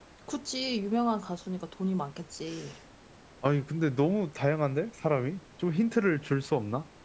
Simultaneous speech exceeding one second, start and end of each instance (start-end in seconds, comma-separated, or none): none